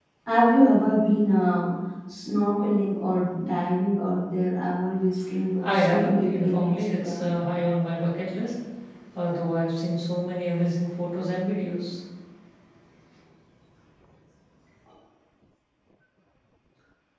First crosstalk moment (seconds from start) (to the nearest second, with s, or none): 6 s